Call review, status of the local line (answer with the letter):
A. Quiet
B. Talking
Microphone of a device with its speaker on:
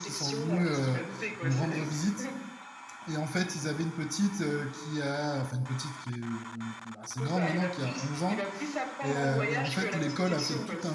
B